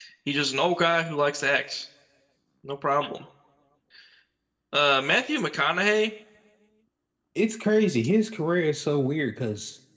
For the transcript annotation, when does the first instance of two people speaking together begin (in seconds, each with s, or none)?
none